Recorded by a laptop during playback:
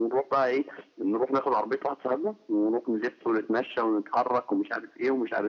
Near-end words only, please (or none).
none